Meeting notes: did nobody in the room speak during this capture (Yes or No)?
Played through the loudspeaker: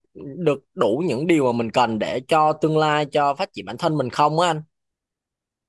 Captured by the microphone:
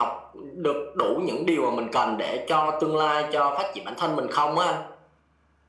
Yes